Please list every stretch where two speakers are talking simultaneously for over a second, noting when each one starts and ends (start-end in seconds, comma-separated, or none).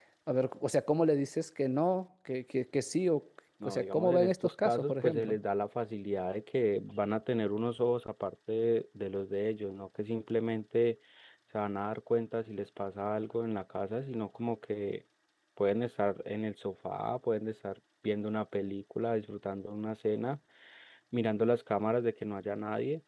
3.6-5.4